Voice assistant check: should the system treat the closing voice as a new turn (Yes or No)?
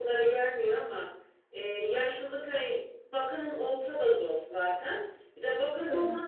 No